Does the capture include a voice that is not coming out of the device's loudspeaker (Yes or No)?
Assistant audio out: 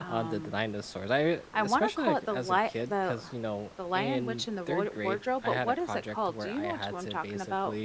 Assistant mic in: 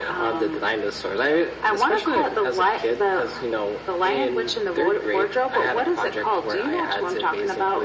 No